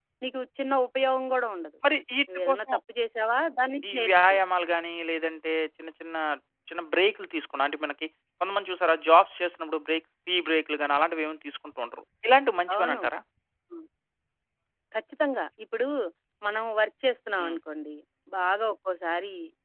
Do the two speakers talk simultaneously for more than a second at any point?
No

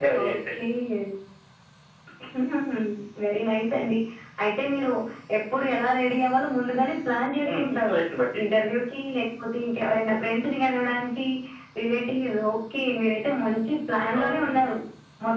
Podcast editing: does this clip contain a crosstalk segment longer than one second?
No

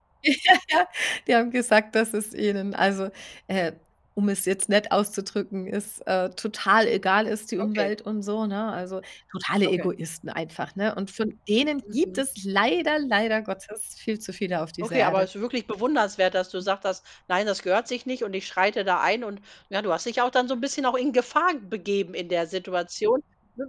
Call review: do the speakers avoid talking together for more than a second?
Yes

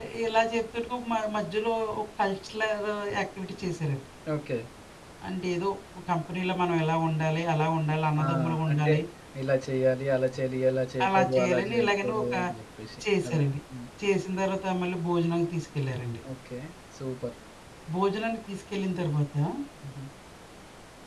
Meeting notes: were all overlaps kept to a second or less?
No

